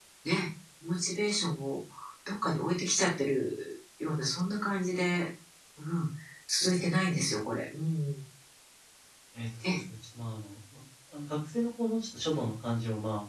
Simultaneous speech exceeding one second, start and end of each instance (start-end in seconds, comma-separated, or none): none